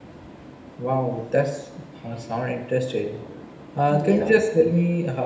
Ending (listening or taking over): listening